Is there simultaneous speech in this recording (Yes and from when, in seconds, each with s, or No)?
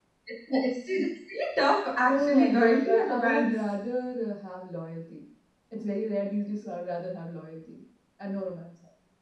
Yes, from 2.1 s